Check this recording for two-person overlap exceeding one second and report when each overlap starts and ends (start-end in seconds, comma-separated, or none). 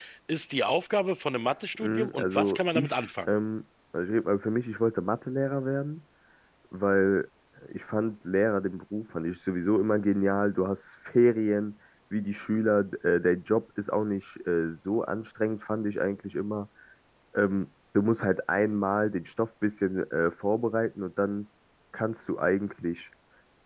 1.8-3.3